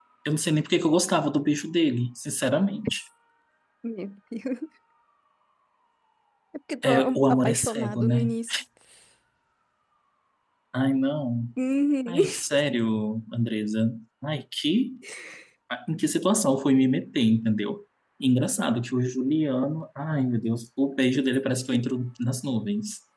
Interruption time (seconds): 6.8 s

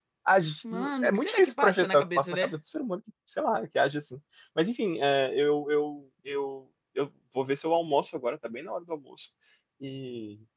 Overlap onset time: 1.0 s

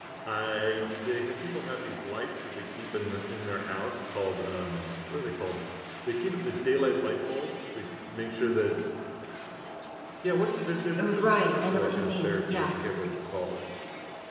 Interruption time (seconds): 11.0 s

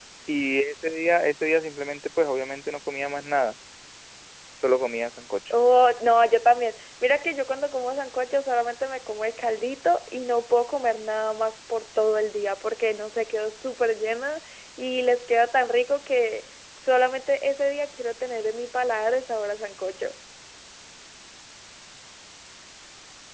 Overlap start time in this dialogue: none

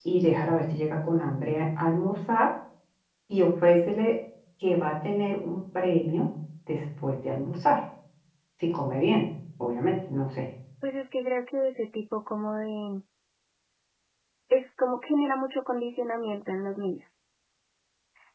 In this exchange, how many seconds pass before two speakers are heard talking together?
none

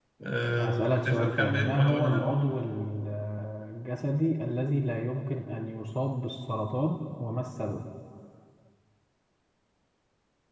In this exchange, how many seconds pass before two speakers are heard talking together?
0.6 s

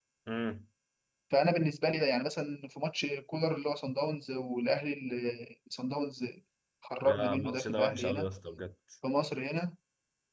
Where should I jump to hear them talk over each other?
7.0 s

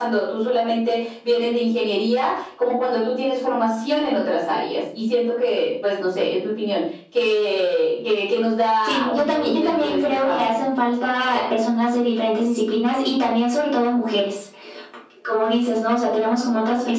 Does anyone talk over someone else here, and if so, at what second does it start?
8.8 s

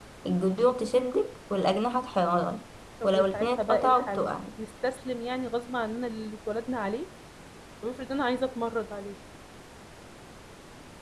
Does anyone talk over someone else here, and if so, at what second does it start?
3.0 s

